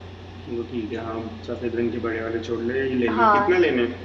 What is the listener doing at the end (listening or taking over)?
taking over